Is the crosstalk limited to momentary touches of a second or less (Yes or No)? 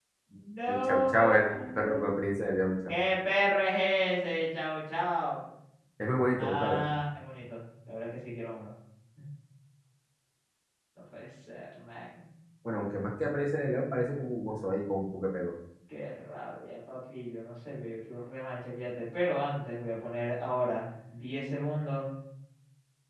No